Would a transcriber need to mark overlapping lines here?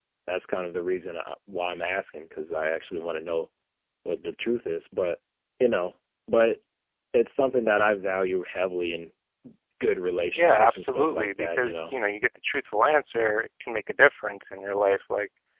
Yes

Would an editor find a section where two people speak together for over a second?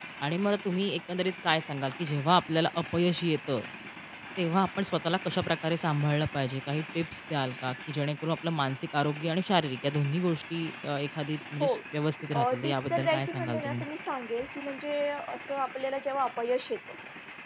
Yes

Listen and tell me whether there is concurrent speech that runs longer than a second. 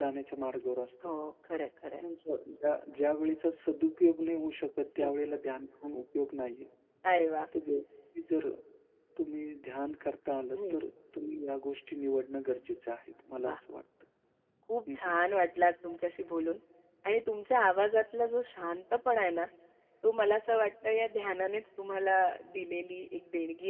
No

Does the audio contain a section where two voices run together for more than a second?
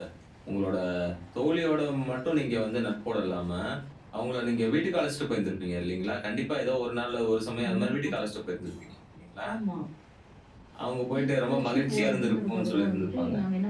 Yes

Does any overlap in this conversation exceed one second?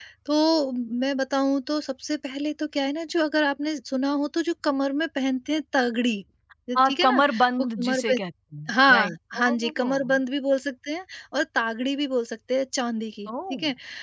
Yes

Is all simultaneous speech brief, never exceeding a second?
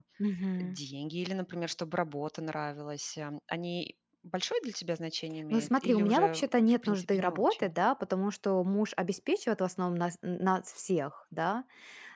No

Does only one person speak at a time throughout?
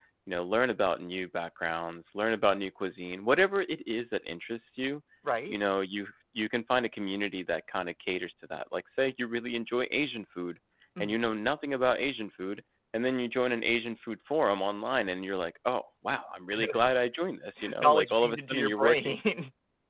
No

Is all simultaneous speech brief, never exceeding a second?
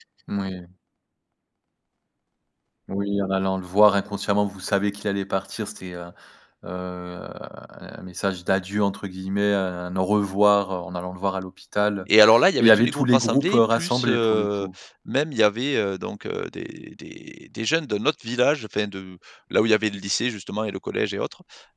No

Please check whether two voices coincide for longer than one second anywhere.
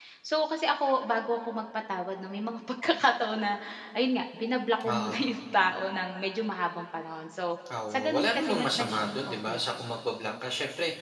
Yes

